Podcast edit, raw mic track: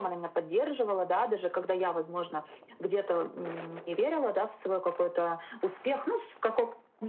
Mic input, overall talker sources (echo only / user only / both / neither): echo only